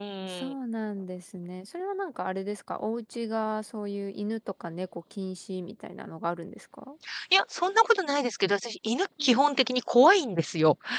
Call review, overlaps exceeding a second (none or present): none